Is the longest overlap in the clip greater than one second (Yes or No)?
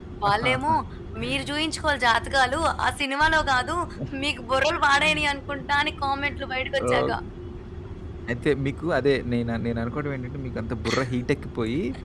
No